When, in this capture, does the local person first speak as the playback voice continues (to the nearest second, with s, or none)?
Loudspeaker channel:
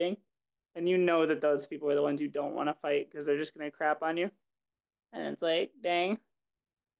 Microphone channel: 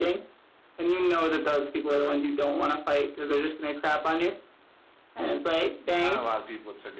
6 s